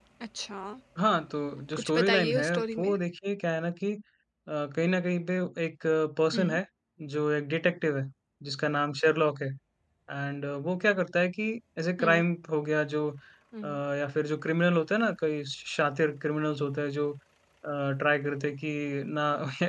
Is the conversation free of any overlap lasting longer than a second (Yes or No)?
No